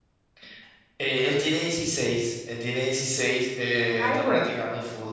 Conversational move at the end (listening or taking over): listening